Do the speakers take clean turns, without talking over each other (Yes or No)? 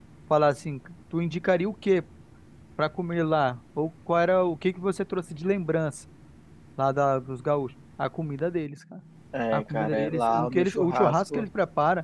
No